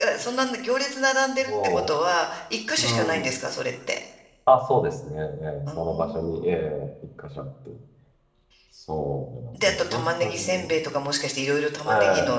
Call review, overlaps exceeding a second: present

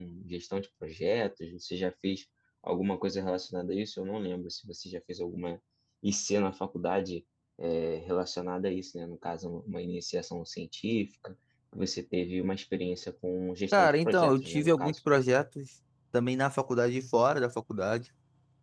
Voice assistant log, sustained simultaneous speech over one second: present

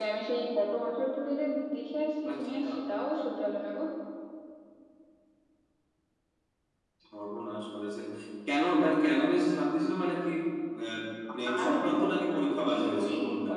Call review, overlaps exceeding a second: present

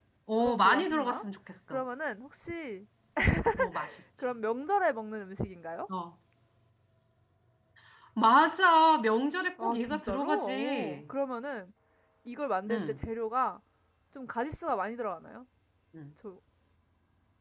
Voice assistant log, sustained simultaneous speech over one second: present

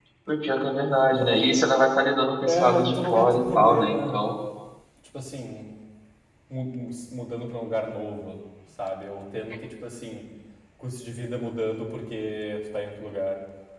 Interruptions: present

